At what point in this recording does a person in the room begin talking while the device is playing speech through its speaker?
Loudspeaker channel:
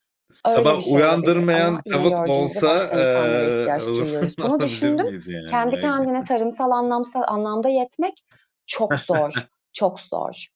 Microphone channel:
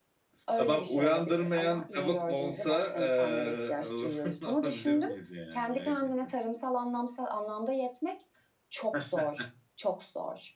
none

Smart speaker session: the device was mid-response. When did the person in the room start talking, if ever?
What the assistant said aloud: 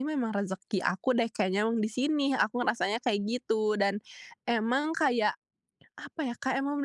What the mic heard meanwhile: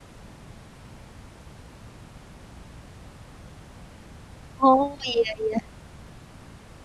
4.6 s

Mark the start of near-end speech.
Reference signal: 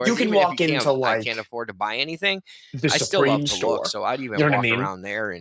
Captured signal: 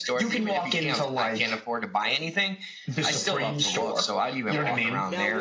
4.5 s

